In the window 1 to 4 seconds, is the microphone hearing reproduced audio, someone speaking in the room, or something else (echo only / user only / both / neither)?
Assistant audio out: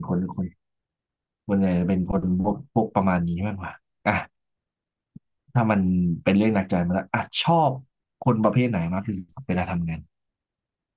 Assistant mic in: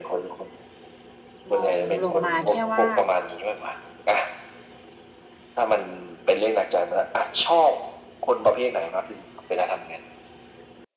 both